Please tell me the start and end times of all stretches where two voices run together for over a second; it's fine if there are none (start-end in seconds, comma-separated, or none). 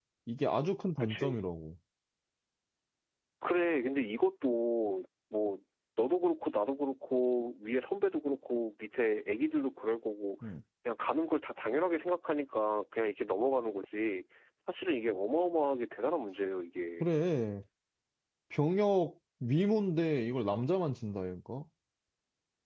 none